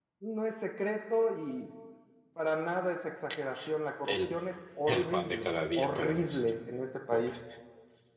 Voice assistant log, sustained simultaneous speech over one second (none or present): present